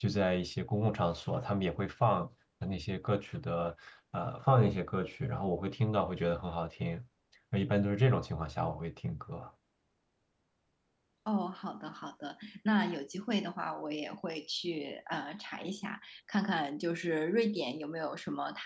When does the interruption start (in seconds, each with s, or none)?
none